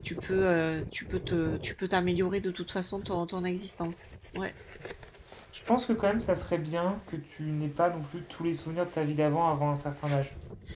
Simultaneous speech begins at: none

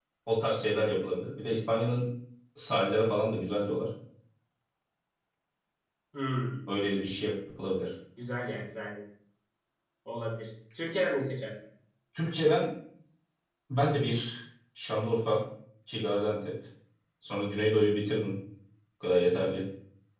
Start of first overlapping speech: none

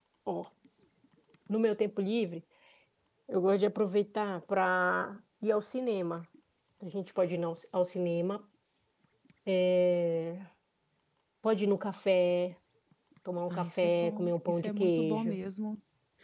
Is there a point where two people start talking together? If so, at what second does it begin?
13.5 s

